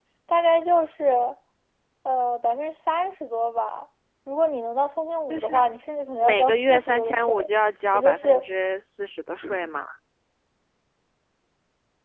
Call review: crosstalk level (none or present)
present